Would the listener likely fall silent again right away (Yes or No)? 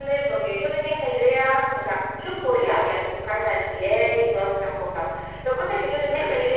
Yes